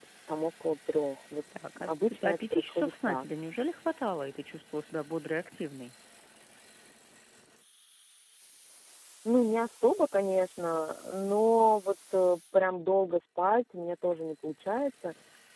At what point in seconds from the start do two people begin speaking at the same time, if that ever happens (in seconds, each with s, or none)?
1.5 s